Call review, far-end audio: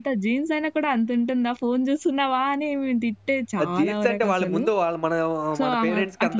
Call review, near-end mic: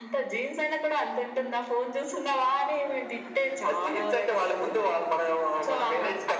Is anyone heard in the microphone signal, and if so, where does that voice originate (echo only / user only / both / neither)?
echo only